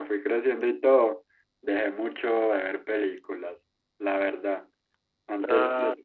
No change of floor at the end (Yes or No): Yes